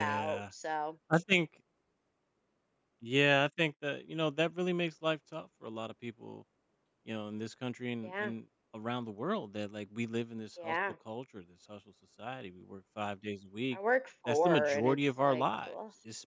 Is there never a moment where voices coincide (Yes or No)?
No